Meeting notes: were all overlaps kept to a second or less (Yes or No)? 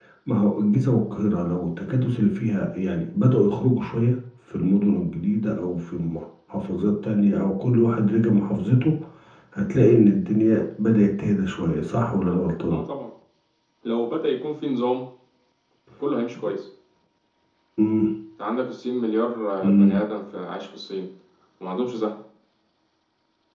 Yes